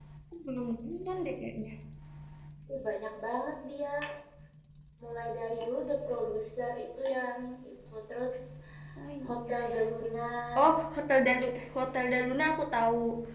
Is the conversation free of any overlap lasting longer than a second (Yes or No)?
Yes